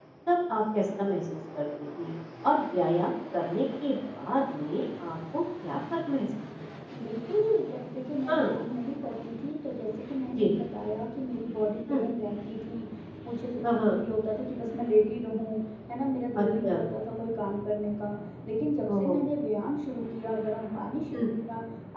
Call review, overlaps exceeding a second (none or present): none